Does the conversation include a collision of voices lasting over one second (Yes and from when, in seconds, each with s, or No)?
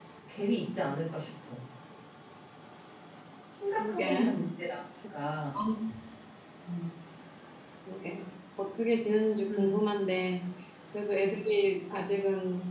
No